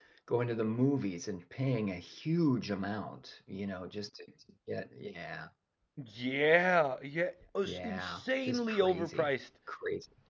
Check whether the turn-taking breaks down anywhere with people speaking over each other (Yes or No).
Yes